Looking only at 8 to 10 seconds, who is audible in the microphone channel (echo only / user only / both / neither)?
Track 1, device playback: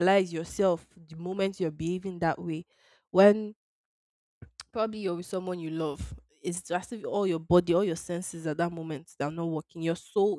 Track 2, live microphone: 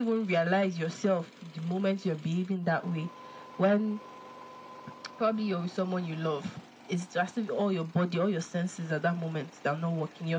echo only